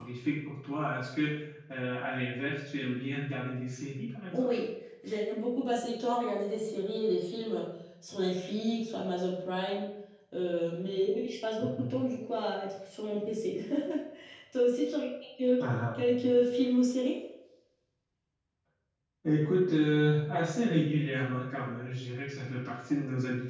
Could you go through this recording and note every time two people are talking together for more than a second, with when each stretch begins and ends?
none

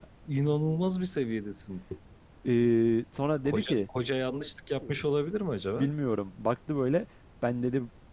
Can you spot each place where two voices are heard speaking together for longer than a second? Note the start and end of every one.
none

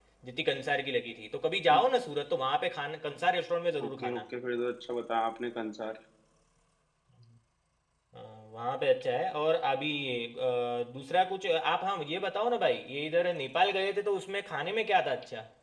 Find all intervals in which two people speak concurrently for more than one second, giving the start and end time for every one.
none

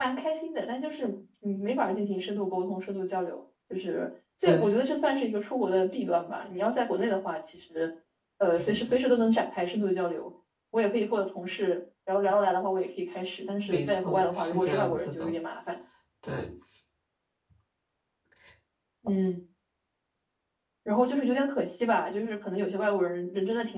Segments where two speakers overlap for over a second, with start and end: 13.7-15.4

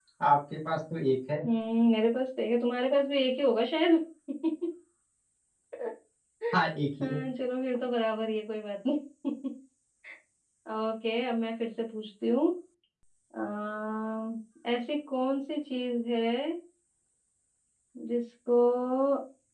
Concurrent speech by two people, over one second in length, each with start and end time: none

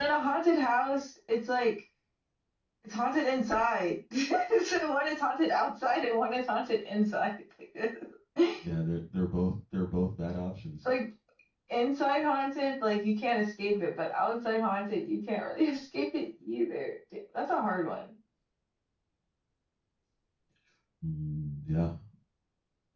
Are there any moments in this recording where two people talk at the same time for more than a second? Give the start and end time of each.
none

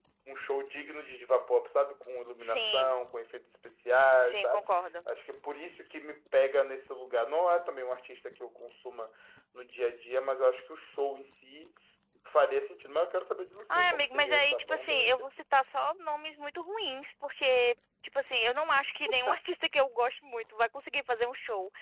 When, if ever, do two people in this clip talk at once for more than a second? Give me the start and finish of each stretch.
13.8-15.2

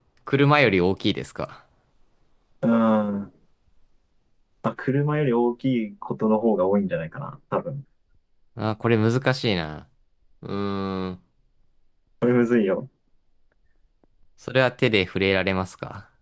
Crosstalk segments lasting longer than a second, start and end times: none

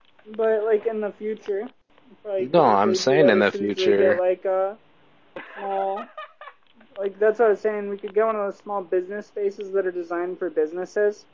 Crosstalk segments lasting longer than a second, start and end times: 2.4-4.2

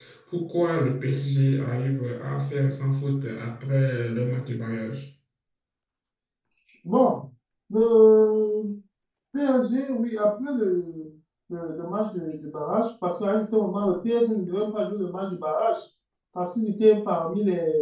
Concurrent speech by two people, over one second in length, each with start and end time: none

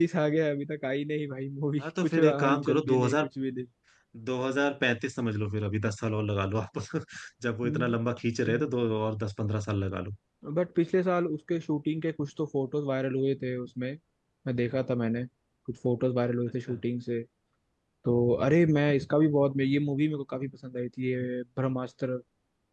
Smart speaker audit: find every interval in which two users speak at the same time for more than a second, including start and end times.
1.8-3.3

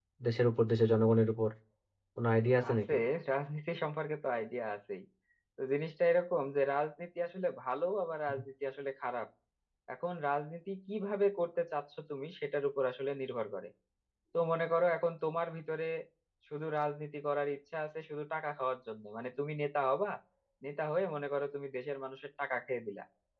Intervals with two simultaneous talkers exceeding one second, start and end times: none

